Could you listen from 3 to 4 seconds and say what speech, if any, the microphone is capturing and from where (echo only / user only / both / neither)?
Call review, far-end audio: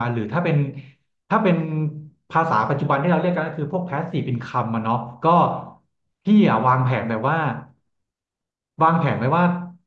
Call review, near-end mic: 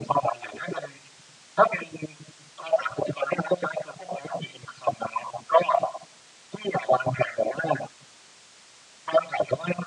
echo only